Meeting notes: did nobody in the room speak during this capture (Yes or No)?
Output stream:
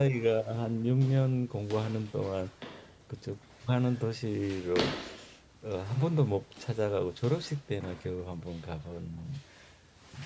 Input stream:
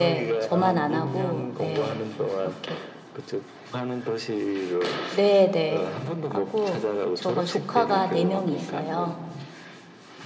No